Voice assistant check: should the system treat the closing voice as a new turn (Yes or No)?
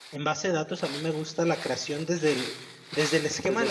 No